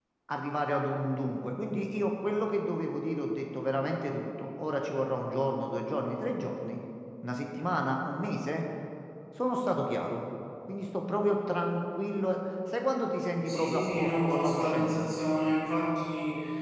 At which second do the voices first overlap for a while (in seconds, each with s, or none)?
13.4 s